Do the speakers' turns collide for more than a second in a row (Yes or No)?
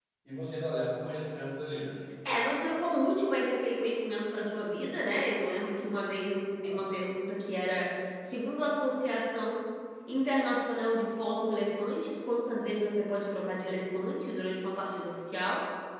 No